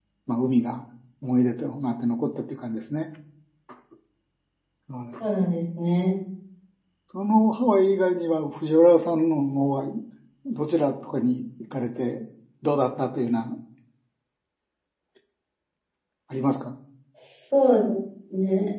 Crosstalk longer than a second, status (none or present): none